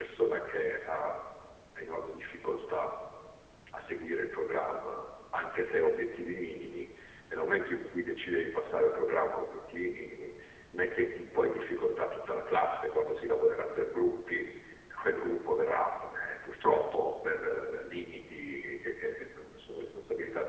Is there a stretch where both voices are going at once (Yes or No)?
No